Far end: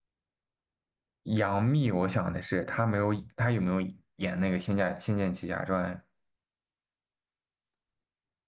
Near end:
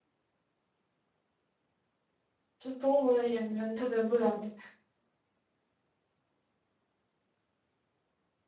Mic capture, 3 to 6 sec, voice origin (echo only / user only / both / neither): user only